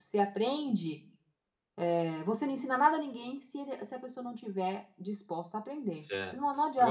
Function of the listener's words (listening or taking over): taking over